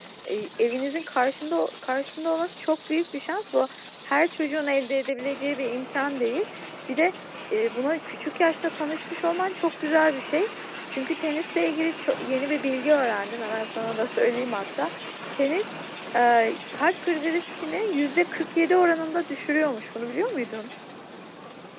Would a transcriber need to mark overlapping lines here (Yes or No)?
No